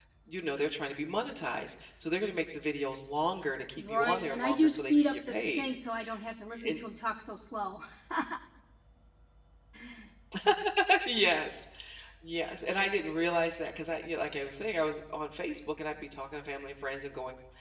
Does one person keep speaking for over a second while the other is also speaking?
Yes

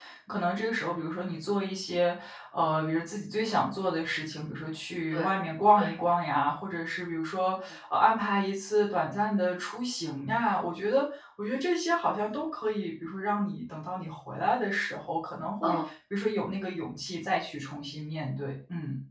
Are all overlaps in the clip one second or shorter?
Yes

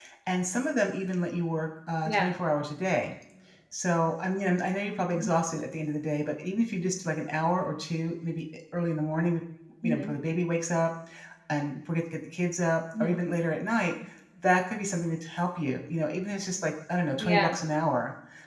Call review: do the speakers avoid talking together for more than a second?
Yes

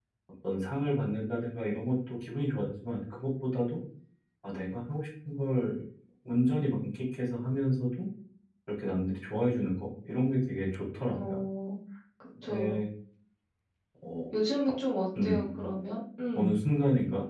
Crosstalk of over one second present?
No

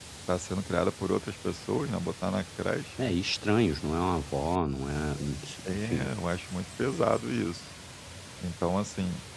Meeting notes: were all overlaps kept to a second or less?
Yes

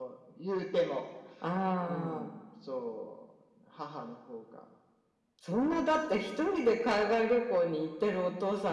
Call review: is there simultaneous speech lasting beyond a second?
No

